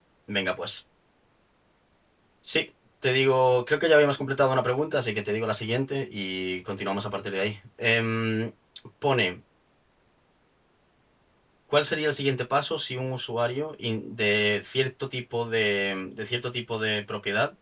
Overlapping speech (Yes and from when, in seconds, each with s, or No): No